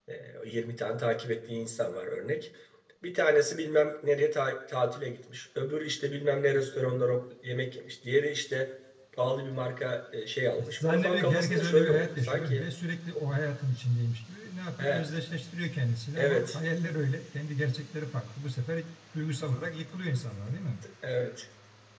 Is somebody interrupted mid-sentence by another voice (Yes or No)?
Yes